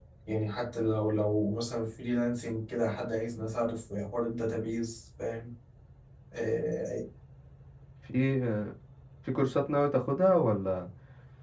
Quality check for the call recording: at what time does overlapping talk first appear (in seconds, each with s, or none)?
none